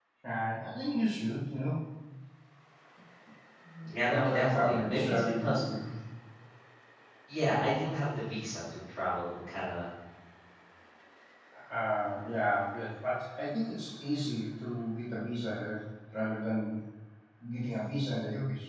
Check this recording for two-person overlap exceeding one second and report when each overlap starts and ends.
4.1-5.6

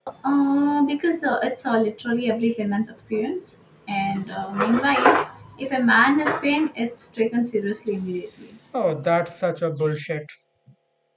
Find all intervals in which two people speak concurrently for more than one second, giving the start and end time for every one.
none

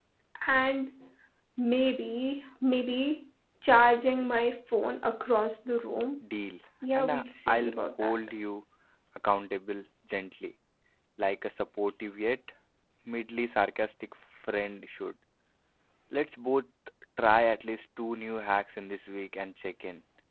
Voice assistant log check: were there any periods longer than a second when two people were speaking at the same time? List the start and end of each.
7.0-8.2

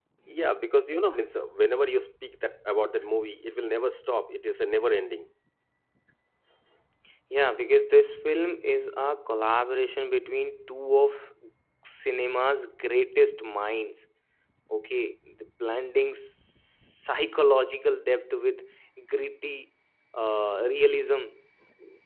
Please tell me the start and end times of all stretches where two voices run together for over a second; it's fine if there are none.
none

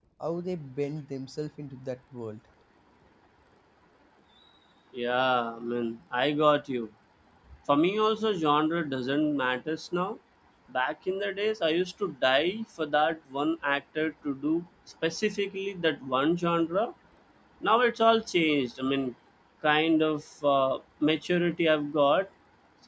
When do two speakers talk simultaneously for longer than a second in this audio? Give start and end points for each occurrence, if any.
none

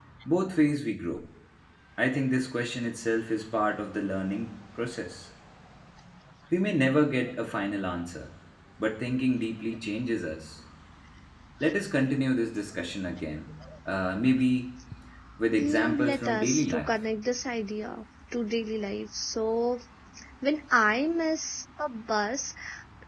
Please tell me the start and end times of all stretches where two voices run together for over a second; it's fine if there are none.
15.6-16.9

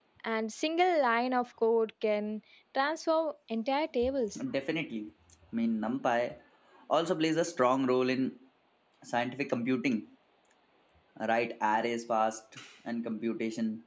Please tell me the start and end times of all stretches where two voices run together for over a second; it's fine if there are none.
none

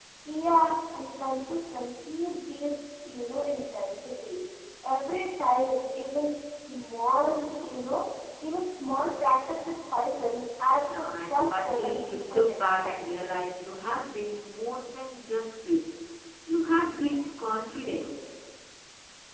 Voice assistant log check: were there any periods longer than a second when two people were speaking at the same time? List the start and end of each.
10.8-12.9

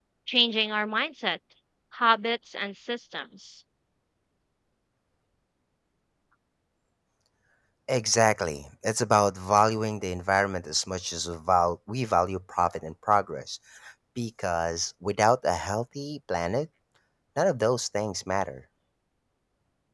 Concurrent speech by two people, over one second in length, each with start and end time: none

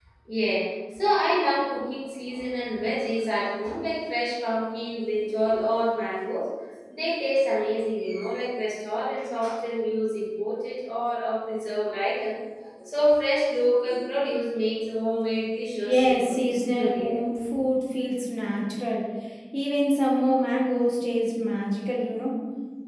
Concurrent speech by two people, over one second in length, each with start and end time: 15.8-17.1

